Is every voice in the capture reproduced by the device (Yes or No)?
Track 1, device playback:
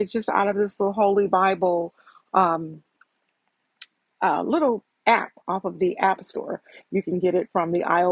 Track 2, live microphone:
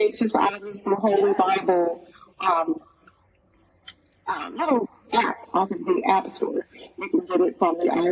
No